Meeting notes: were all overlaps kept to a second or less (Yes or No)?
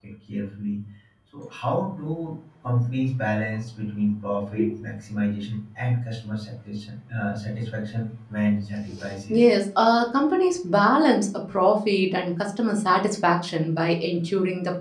Yes